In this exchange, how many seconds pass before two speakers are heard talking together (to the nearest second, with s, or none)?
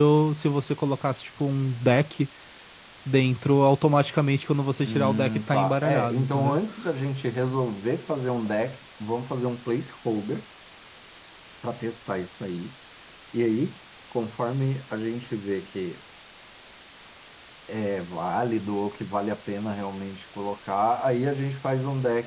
5 s